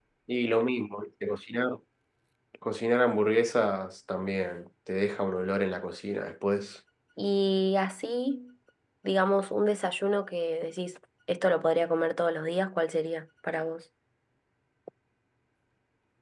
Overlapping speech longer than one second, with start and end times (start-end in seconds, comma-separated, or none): none